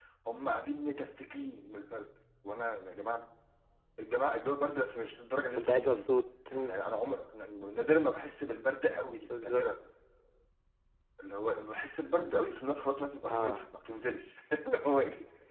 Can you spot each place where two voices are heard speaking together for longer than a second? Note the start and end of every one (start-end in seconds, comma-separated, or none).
none